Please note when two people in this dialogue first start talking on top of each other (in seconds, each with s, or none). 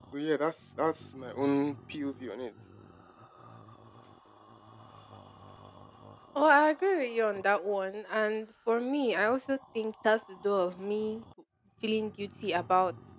none